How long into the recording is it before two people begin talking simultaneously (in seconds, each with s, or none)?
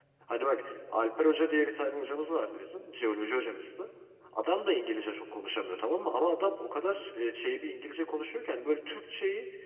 none